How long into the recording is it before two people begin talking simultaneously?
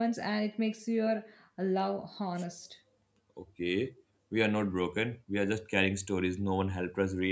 none

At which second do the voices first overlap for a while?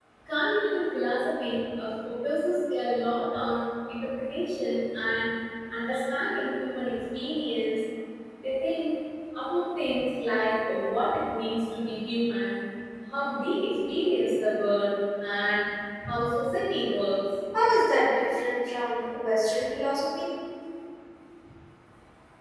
none

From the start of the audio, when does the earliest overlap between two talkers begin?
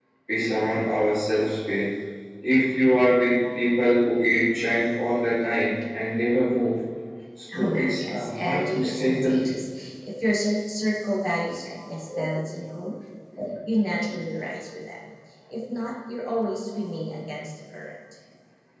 8 s

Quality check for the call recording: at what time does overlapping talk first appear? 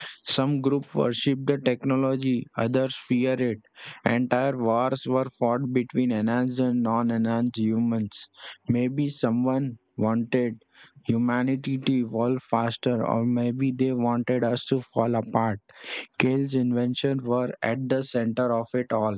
none

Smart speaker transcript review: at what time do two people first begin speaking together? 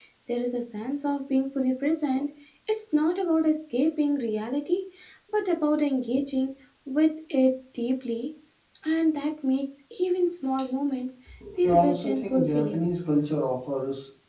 12 s

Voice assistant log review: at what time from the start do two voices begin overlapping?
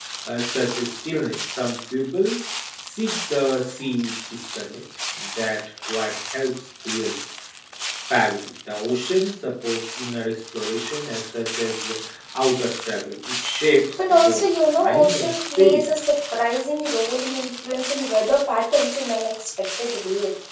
14 s

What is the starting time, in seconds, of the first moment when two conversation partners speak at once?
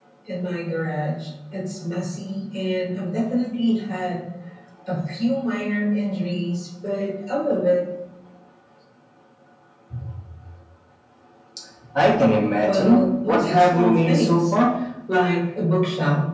13 s

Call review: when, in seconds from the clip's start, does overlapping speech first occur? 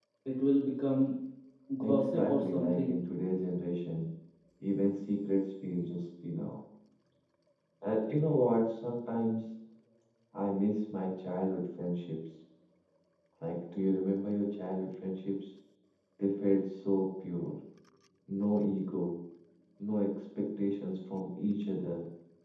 2 s

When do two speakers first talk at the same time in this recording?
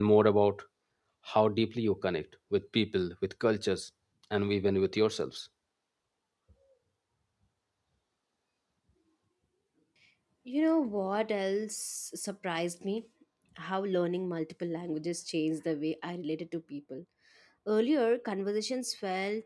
none

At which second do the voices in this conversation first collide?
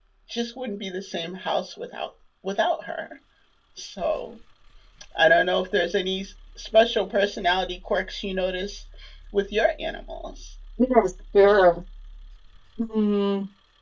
none

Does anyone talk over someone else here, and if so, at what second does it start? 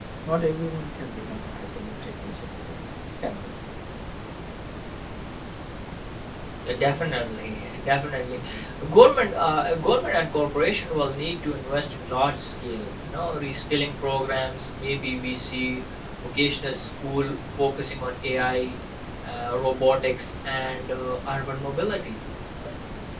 none

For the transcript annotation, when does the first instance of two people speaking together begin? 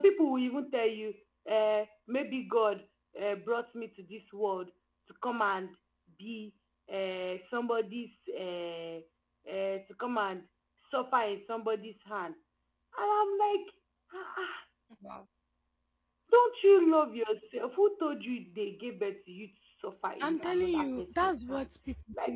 20 s

